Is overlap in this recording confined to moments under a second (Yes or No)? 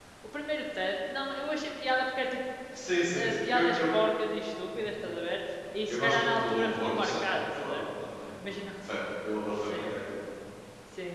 No